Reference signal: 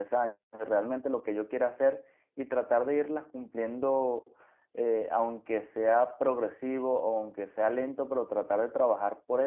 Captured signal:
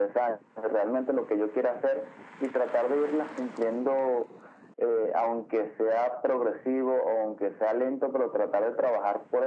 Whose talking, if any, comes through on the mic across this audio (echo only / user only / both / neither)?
echo only